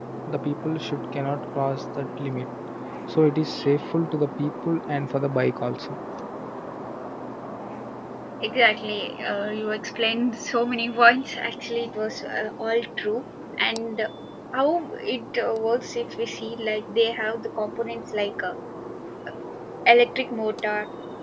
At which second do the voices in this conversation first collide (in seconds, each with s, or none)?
none